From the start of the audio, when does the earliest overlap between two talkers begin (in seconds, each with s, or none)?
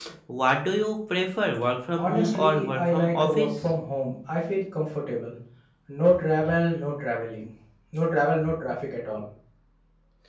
2.0 s